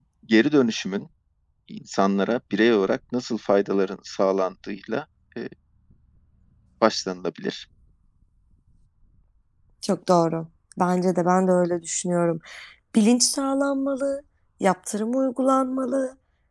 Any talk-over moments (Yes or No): No